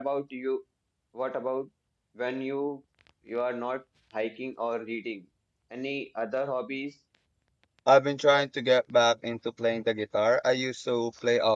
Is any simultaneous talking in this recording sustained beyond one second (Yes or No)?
No